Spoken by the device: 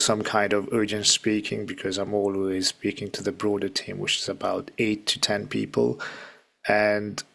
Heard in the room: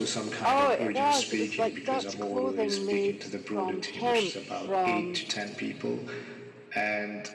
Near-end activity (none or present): present